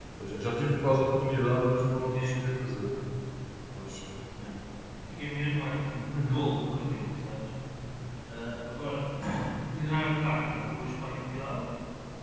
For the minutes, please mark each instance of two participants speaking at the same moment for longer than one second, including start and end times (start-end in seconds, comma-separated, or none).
none